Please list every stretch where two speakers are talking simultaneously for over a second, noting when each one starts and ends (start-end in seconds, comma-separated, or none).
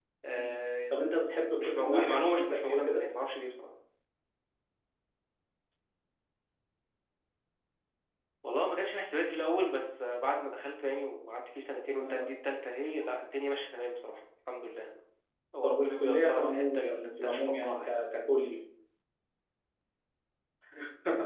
1.6-3.0, 15.6-17.9